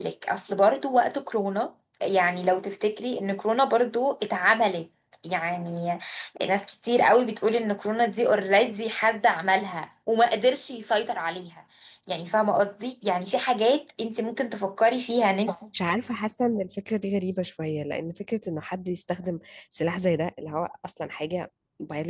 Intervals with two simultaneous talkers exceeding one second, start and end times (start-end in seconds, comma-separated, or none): none